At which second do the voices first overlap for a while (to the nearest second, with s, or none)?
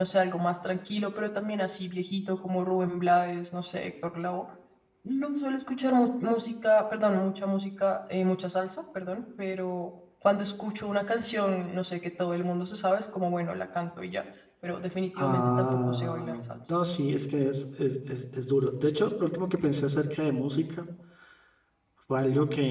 15 s